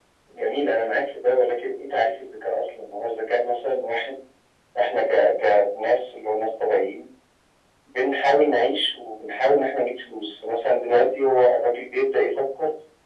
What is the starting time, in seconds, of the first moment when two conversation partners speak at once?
none

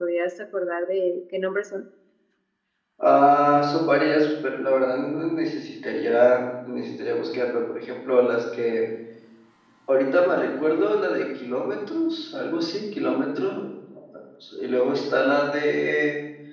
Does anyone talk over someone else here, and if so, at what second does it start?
none

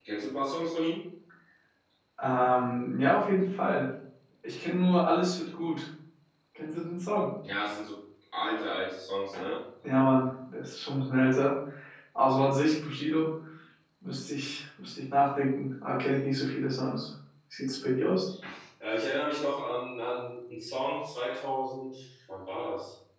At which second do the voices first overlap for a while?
none

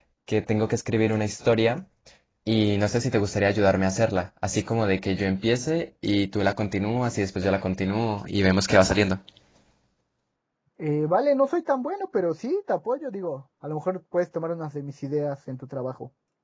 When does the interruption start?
none

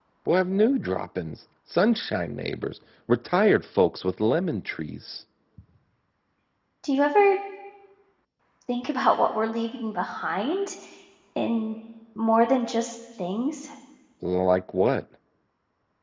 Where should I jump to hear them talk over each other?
none

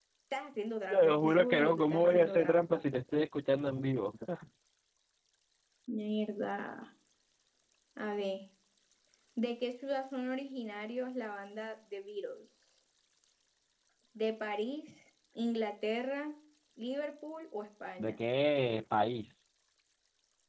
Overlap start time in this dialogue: 0.9 s

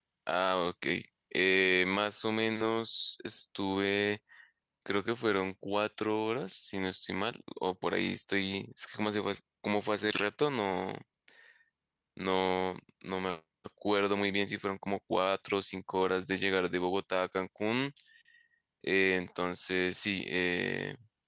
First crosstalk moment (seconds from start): none

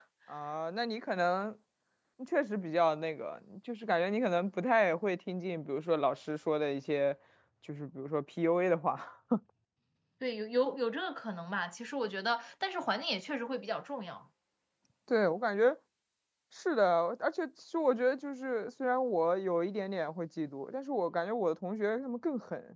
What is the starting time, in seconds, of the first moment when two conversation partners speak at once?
none

